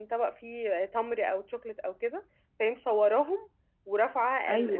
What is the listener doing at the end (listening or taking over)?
listening